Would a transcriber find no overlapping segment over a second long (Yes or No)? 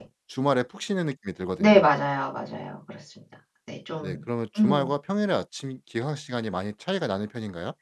Yes